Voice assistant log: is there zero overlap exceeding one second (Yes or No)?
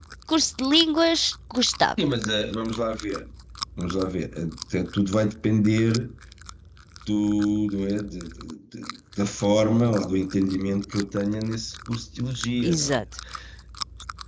Yes